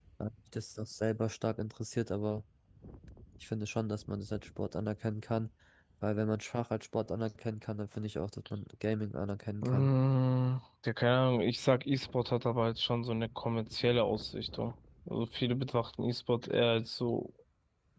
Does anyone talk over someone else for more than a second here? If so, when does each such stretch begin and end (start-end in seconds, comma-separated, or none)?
none